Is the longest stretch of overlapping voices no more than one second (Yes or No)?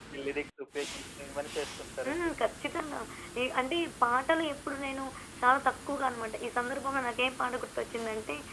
Yes